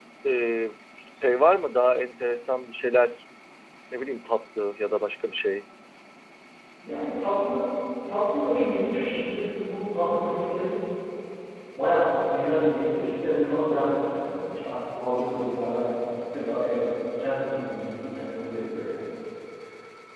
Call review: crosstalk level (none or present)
none